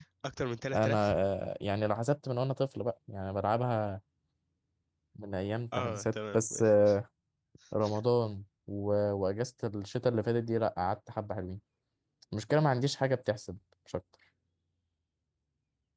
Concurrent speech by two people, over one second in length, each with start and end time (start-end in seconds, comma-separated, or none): 5.7-7.0